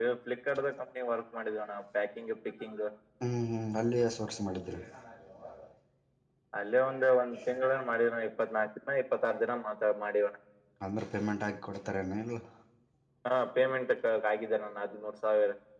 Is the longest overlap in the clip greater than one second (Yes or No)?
No